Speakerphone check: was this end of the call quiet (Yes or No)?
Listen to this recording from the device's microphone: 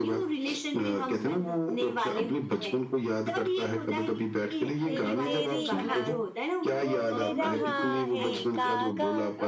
No